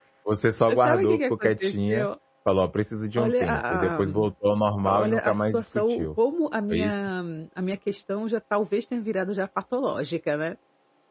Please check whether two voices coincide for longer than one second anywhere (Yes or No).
Yes